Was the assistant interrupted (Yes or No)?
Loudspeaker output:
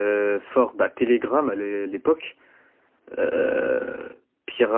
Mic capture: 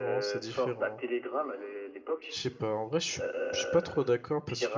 Yes